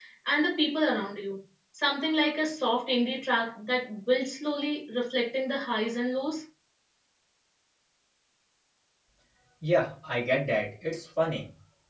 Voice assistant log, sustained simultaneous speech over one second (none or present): none